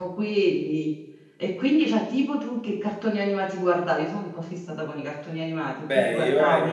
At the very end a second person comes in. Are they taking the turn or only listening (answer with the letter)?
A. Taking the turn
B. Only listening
A